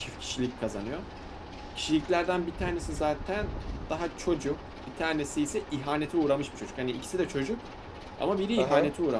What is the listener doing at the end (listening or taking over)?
listening